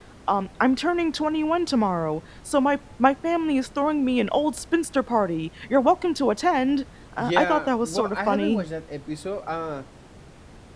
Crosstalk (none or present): present